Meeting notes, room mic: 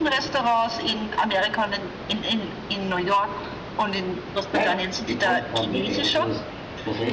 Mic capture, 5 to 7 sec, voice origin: both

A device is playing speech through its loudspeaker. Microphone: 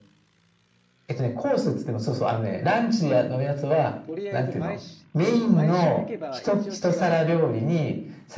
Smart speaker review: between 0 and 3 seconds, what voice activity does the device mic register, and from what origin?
echo only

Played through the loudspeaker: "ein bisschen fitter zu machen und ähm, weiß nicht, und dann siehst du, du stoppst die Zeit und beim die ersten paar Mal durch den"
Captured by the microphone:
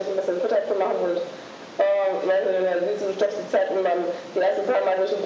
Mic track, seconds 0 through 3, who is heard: echo only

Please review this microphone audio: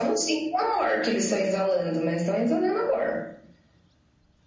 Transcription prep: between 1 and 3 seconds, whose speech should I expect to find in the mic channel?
echo only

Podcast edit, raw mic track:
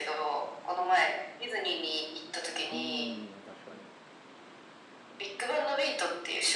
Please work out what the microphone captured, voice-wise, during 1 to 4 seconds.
both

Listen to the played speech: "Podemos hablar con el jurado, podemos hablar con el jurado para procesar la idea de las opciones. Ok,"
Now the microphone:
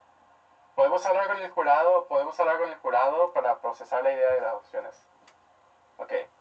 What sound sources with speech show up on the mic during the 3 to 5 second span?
echo only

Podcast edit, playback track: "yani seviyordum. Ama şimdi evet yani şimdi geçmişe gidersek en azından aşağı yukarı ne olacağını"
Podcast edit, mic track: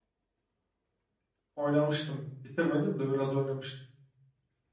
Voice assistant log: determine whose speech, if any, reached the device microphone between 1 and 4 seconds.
user only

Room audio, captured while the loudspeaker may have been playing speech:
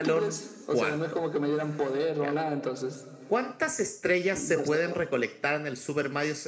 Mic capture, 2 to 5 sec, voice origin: both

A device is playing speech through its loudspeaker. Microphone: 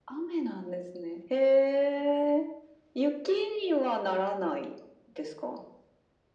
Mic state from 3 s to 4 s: echo only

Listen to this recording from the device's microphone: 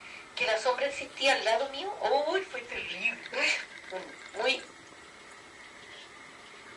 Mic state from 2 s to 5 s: echo only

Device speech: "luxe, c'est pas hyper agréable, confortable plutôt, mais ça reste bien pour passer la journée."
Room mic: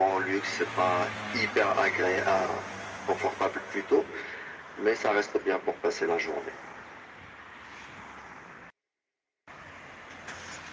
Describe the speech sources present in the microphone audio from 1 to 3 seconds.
echo only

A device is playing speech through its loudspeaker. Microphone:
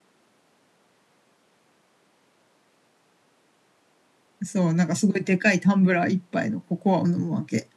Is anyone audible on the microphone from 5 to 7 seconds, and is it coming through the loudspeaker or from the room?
user only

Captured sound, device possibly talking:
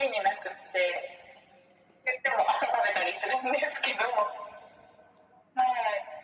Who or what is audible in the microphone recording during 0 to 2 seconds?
echo only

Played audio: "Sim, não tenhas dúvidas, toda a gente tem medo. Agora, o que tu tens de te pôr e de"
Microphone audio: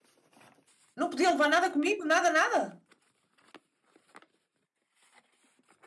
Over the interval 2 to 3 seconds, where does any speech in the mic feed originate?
user only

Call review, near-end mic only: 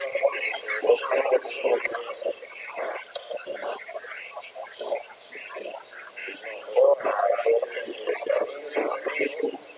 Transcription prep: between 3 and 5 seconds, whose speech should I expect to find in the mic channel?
neither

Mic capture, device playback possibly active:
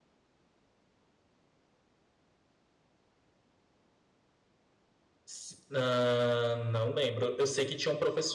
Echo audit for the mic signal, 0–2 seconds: neither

